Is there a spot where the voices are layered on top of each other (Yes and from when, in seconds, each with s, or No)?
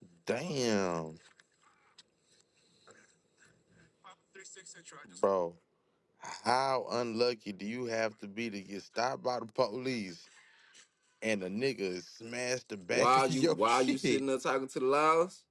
Yes, from 12.9 s